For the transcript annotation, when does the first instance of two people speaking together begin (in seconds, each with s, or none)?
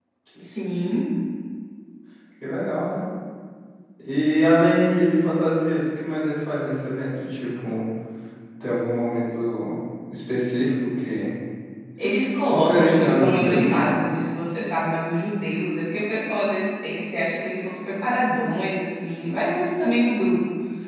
12.5 s